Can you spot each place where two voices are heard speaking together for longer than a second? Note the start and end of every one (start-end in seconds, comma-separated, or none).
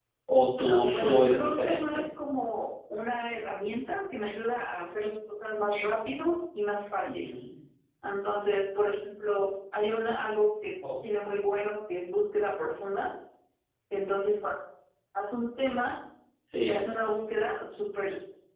0.7-2.0